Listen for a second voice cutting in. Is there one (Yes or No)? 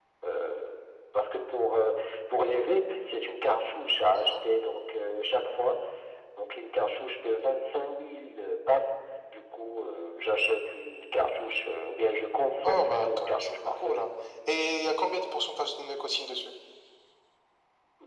Yes